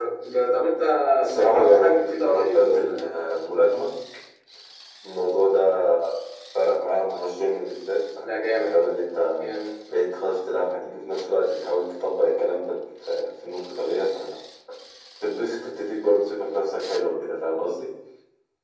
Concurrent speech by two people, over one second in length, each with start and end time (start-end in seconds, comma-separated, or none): 1.3-3.1